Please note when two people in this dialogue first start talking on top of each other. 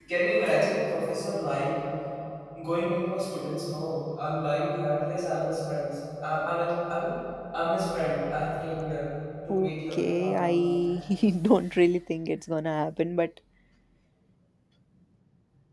9.5 s

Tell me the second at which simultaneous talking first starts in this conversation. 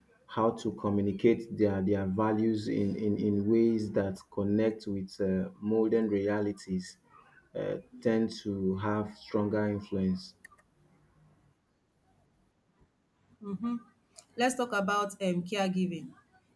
none

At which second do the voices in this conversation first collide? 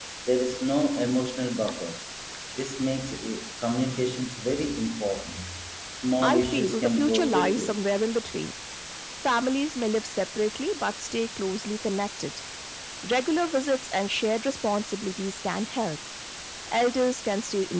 6.2 s

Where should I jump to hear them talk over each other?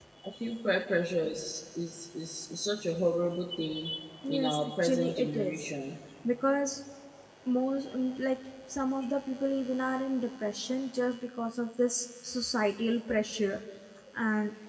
4.3 s

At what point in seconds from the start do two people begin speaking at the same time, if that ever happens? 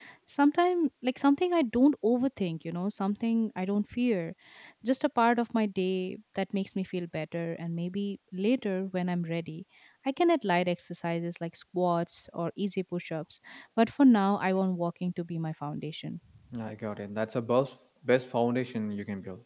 none

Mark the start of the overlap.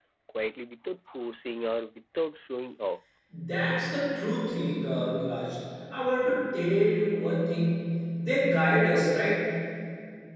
none

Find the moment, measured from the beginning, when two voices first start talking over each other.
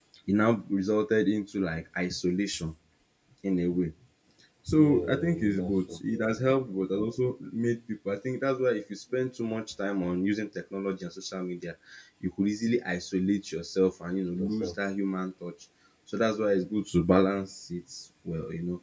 4.8 s

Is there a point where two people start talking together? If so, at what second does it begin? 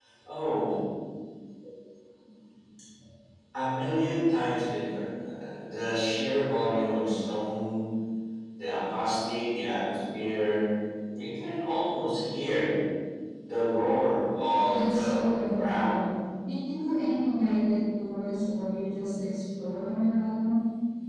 14.6 s

